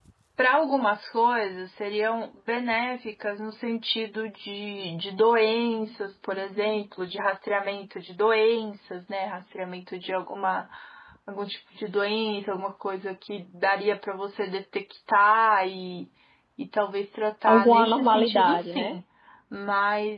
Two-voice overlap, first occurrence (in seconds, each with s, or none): 17.5 s